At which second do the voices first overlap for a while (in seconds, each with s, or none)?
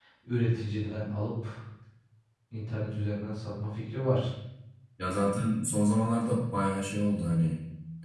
none